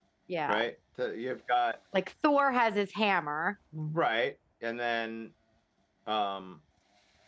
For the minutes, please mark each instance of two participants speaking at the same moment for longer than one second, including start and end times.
none

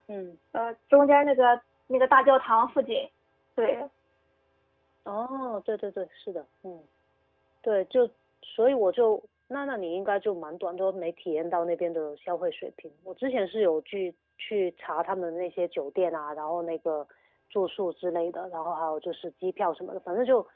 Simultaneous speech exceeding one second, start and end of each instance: none

